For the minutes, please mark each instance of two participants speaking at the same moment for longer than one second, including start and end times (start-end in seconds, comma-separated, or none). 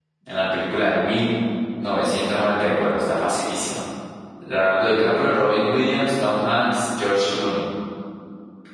none